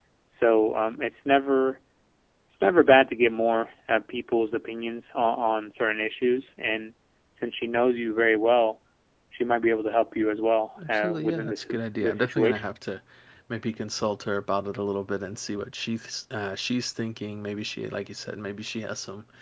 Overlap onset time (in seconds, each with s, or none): 10.8 s